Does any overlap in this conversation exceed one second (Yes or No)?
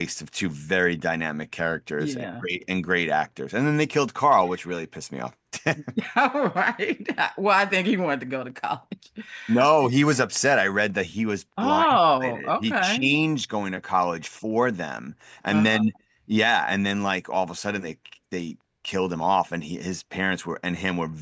Yes